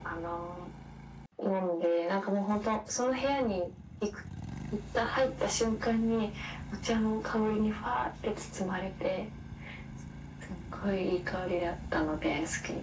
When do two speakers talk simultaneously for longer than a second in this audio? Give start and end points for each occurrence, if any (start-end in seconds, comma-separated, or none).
none